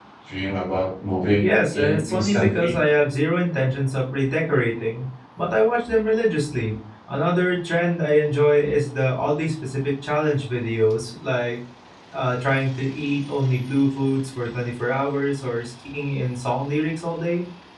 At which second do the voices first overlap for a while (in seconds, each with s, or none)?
1.4 s